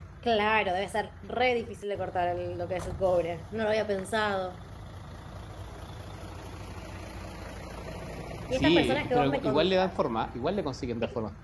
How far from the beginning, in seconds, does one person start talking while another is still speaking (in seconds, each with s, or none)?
8.5 s